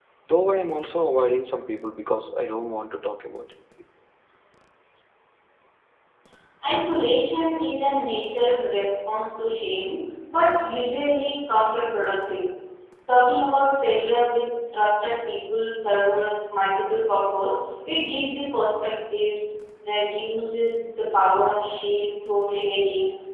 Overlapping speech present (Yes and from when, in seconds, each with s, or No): No